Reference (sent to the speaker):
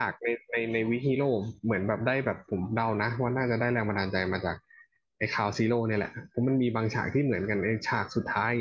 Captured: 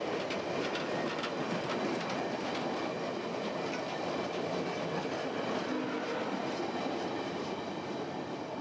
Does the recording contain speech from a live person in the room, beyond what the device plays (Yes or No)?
No